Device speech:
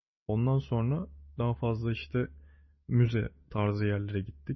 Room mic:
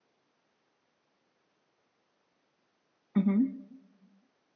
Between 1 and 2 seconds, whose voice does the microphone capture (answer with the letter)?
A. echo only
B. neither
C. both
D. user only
B